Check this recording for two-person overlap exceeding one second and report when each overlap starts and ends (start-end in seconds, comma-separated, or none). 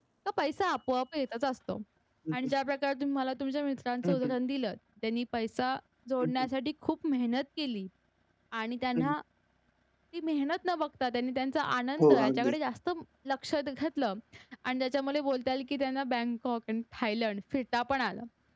none